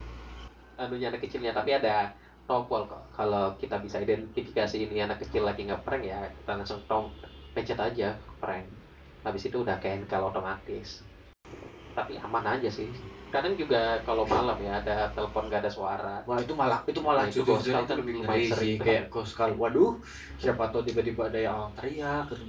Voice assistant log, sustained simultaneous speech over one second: present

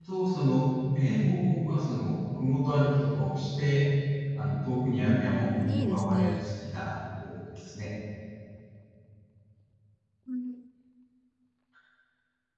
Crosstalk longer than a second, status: present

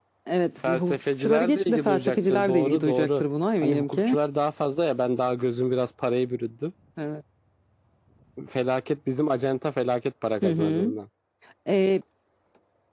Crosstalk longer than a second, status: present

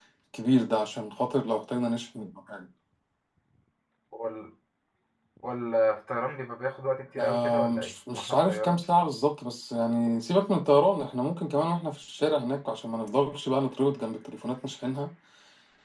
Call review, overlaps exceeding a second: present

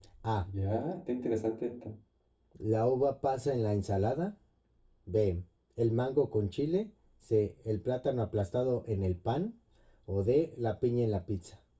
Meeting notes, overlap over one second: none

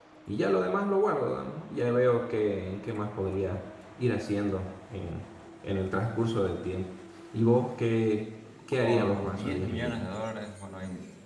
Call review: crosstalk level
present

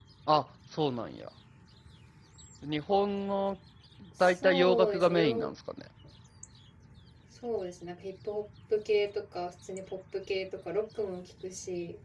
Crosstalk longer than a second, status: present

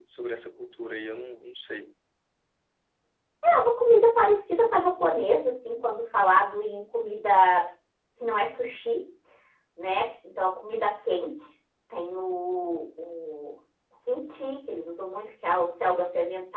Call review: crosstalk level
none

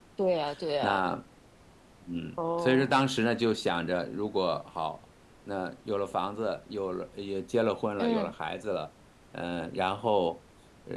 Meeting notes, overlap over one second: none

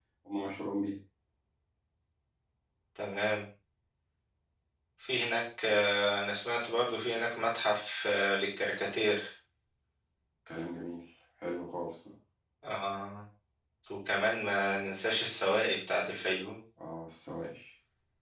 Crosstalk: none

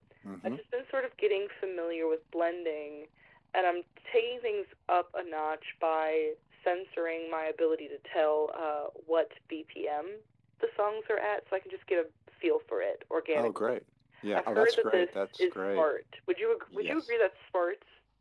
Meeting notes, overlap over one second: present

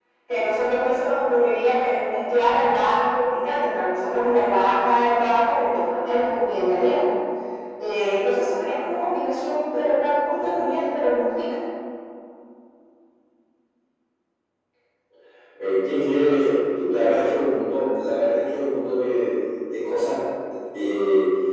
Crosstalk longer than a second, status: none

